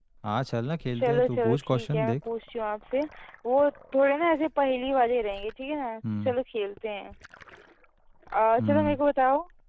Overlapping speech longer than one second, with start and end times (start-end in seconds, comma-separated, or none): 0.9-2.2